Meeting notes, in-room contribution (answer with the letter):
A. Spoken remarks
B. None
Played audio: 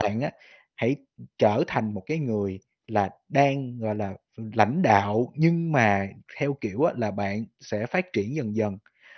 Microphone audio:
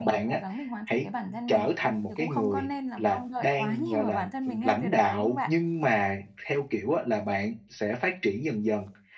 A